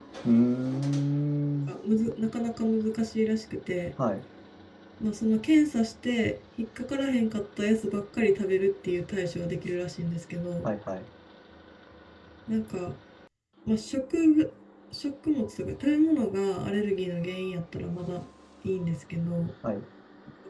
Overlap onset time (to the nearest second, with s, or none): none